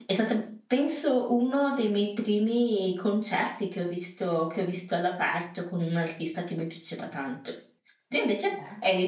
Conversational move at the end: listening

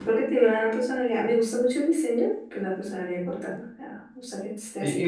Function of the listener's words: taking over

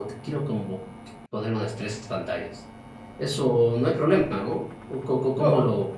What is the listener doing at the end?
taking over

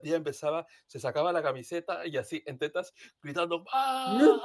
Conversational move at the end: listening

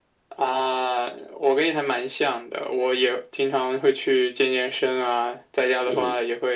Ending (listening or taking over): listening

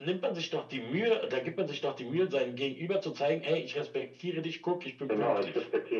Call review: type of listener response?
taking over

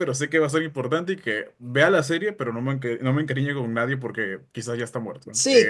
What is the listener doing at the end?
taking over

